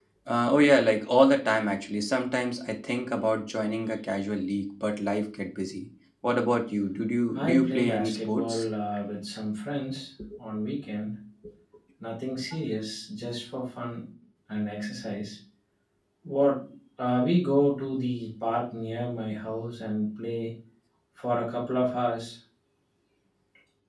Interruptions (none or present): present